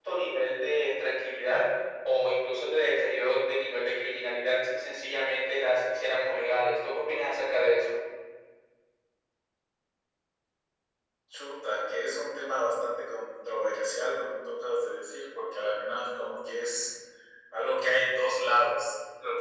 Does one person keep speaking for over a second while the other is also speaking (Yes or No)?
No